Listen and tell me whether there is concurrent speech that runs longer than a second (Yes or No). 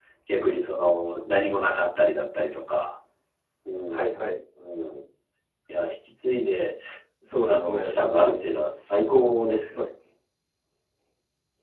No